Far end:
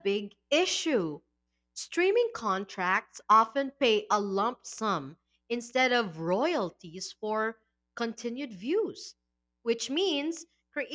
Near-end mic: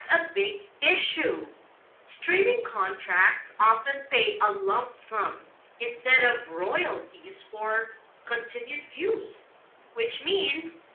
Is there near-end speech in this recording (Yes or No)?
No